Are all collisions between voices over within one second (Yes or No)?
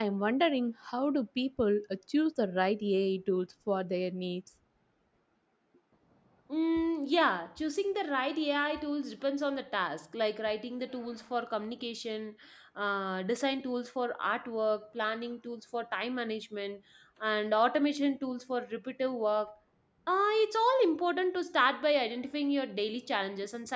Yes